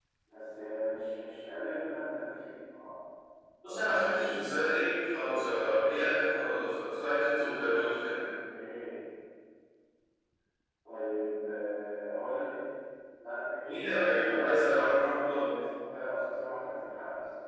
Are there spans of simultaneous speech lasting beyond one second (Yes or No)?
Yes